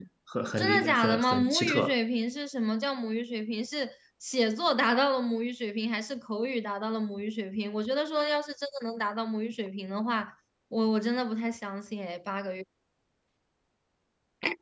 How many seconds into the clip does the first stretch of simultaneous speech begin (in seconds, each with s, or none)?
0.6 s